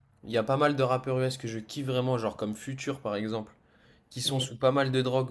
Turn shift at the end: No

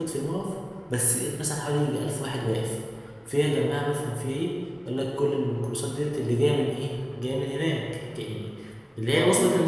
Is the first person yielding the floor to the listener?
No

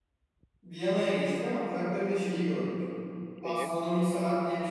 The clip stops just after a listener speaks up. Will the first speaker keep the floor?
Yes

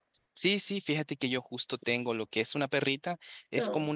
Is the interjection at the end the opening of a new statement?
No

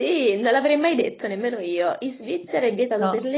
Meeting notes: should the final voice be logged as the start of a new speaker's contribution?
No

